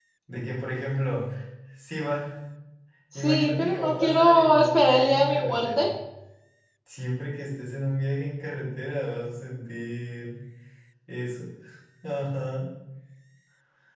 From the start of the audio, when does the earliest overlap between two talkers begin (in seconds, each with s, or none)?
3.1 s